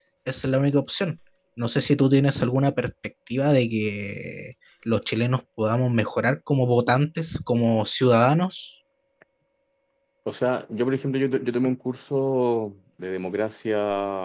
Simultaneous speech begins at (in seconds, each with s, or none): none